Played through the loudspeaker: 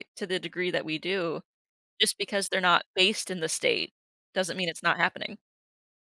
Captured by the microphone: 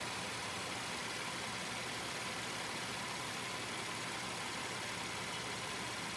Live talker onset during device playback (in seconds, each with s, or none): none